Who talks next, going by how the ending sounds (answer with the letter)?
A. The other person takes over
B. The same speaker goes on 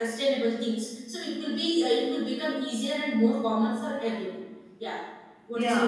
A